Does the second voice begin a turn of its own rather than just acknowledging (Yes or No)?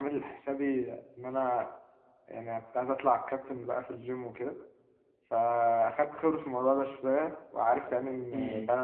No